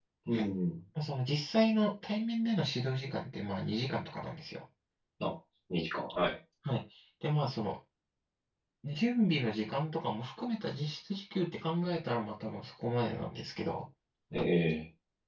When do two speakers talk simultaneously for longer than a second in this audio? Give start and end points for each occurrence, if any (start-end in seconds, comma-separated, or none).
none